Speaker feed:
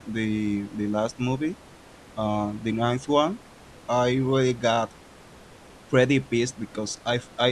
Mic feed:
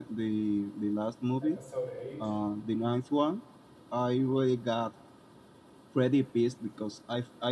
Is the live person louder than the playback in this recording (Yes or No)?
No